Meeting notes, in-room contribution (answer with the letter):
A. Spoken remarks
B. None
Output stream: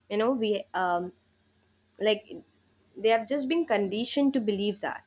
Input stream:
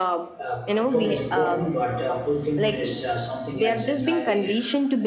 A